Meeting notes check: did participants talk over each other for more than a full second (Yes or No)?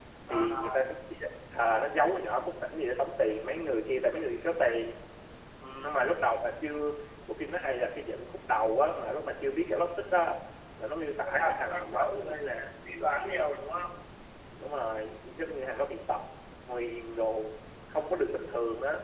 Yes